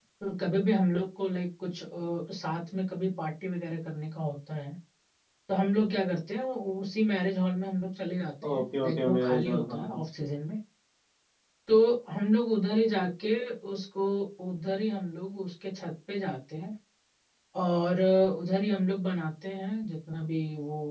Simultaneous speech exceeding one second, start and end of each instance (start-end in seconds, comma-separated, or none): 8.5-10.0